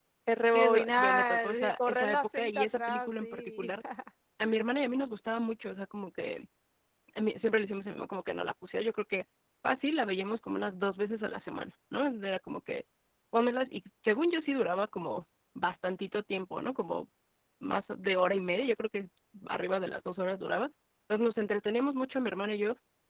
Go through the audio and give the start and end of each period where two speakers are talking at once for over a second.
0.5-3.7

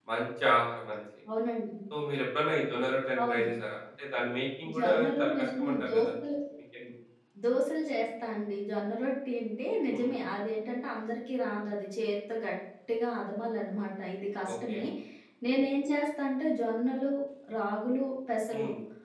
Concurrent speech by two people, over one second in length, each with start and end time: 4.8-6.1

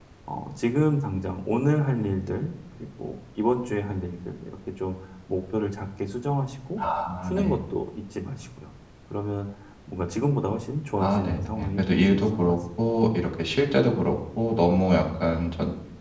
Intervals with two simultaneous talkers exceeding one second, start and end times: 11.0-12.6

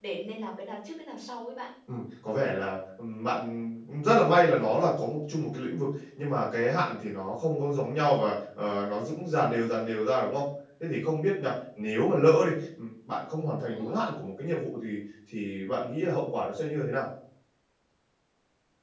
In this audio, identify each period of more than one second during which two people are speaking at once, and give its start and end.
none

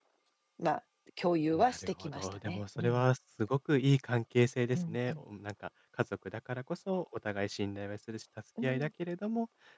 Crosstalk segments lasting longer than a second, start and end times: 1.5-3.1

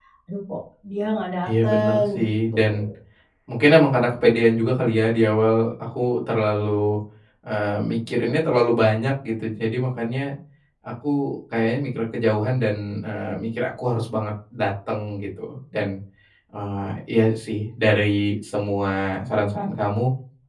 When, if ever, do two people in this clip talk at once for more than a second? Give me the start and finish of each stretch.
1.5-2.9

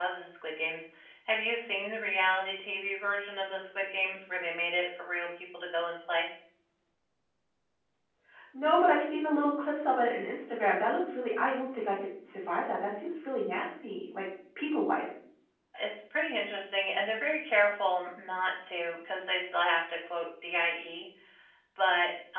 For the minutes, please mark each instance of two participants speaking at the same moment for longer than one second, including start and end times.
none

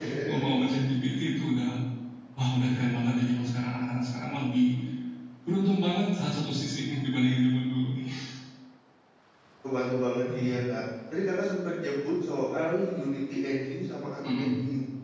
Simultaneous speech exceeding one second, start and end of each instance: none

